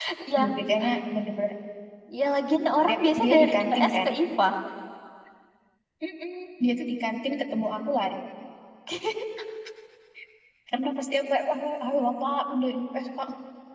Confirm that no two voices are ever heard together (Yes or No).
No